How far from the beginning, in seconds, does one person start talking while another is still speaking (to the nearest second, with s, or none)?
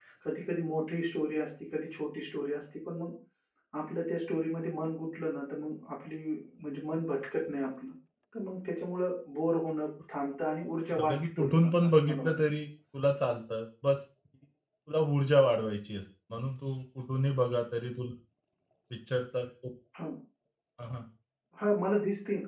11 s